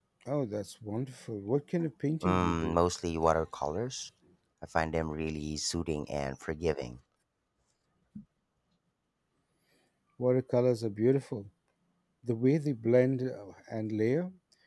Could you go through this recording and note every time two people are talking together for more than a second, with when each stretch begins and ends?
none

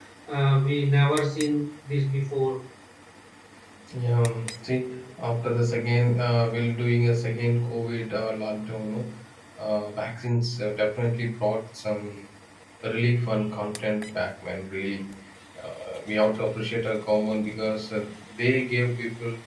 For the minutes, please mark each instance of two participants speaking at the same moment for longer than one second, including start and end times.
none

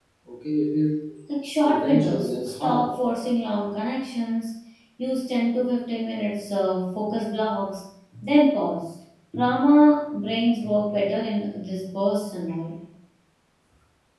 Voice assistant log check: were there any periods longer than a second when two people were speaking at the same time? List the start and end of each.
1.6-2.9

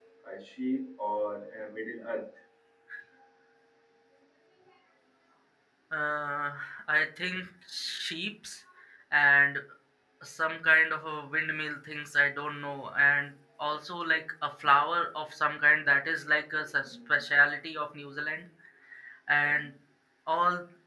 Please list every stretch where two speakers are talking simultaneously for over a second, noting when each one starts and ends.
none

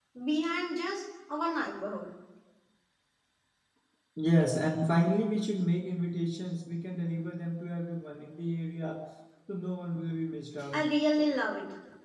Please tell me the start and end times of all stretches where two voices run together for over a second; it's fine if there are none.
none

